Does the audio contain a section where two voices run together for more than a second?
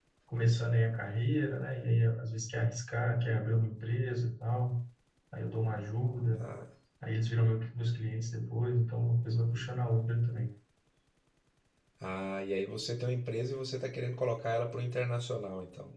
No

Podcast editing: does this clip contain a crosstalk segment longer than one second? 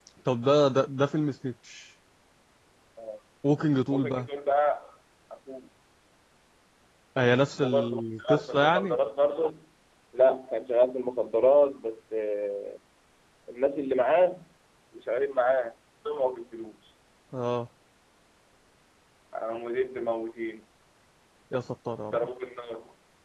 Yes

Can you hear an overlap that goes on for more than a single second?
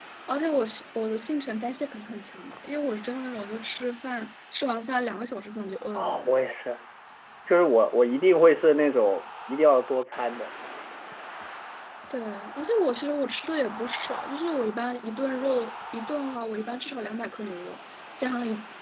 No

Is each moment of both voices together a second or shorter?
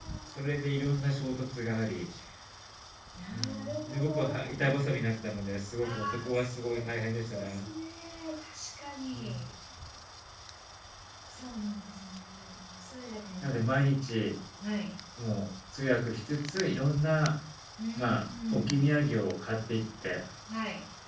No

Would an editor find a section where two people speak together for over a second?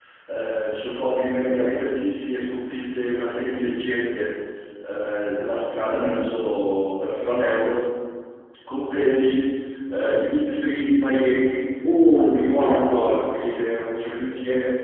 Yes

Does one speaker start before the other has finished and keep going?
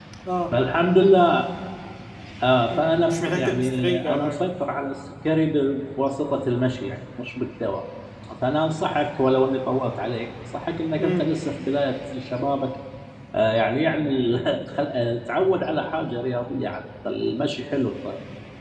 Yes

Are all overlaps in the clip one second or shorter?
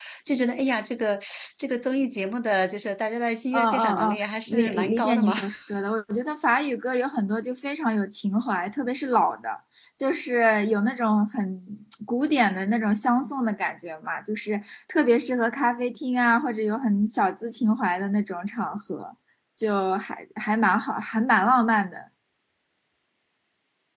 No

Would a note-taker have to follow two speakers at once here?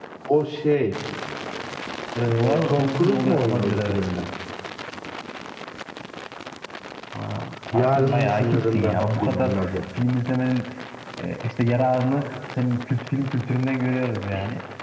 Yes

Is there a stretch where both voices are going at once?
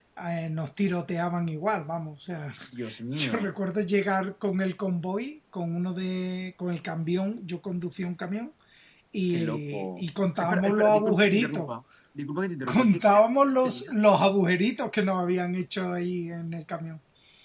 Yes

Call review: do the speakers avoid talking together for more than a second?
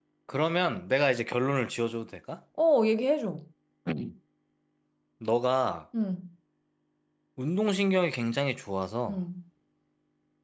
Yes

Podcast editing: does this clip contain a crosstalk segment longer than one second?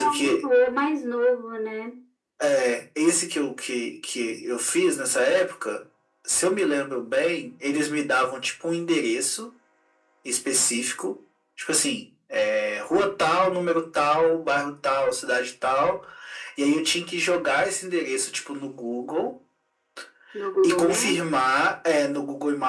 No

